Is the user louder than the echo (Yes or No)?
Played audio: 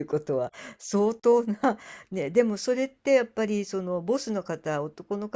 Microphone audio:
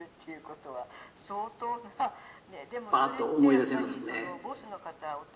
Yes